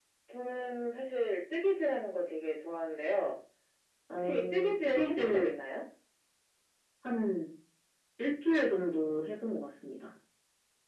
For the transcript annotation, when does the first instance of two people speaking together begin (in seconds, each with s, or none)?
4.2 s